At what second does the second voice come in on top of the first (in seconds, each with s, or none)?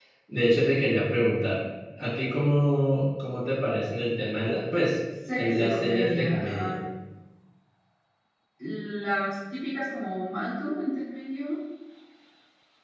5.2 s